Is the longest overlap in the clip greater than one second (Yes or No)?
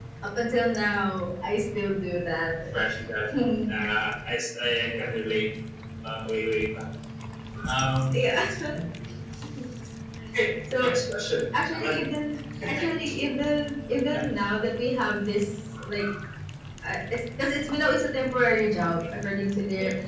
No